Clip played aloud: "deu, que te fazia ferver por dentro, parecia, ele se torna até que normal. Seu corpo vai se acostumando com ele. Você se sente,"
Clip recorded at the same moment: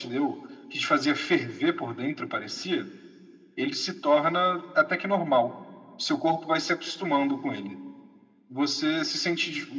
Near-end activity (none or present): none